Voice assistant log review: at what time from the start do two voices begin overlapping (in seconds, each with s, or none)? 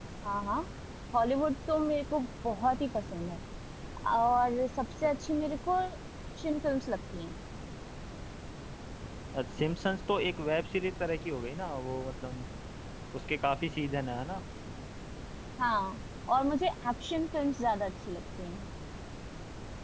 none